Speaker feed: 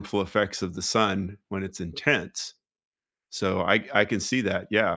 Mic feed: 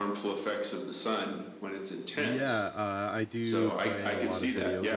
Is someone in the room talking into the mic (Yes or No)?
Yes